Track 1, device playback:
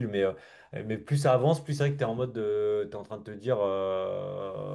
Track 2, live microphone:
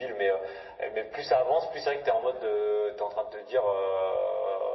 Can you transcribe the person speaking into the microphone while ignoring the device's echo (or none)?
none